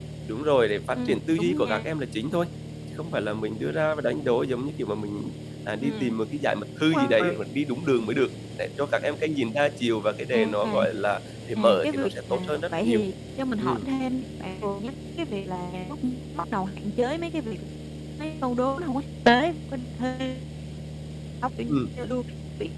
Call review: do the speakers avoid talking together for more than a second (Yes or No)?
No